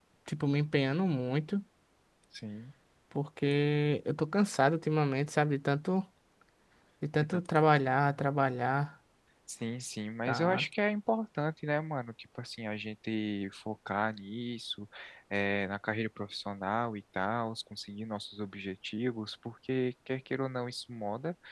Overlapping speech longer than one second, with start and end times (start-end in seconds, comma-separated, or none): none